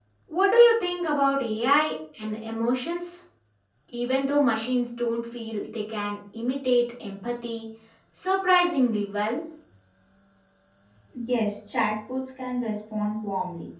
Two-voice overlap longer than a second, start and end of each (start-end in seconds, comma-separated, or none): none